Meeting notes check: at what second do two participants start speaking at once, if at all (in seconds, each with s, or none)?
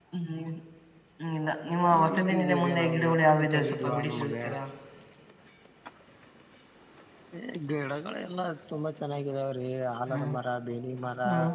2.0 s